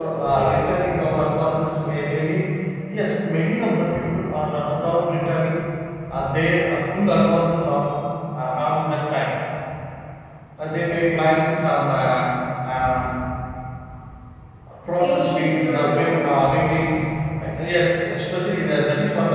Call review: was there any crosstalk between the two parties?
Yes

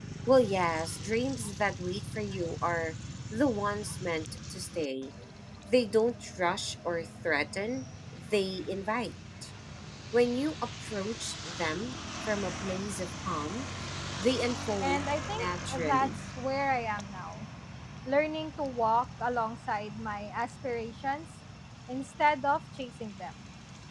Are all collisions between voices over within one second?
No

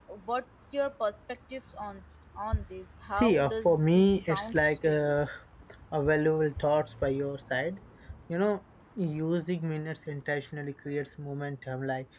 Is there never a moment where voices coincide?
No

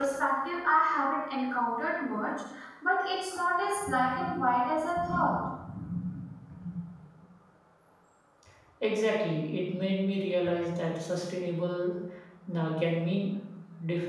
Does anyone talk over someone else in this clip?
No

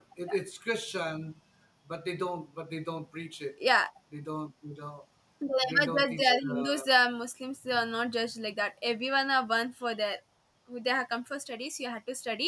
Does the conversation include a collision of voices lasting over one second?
Yes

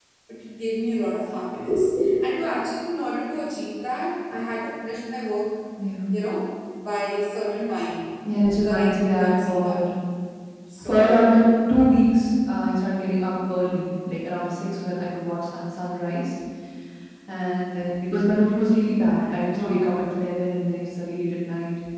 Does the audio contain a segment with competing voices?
Yes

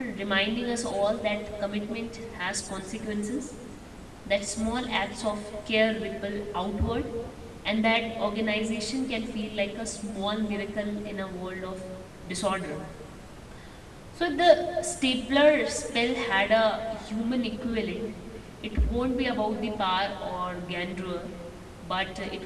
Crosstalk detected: No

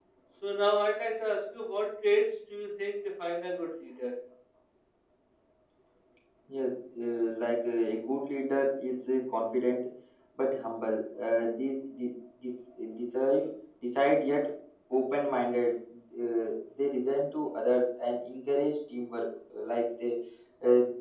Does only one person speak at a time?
Yes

